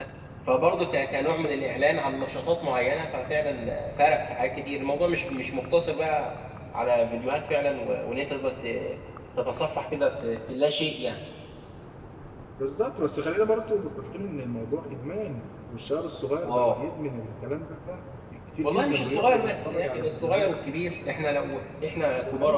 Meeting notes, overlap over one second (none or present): present